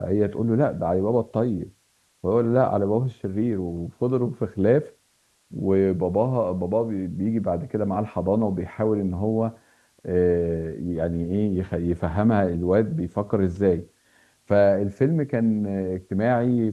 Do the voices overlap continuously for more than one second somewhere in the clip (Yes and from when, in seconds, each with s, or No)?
No